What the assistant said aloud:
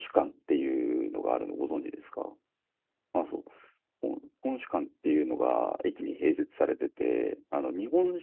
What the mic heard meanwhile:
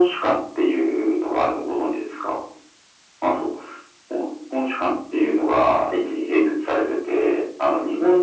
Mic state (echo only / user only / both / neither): echo only